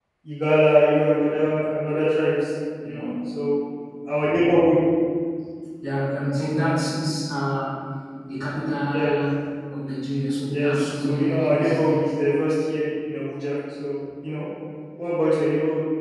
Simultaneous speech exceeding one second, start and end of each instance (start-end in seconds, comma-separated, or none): 10.5-12.1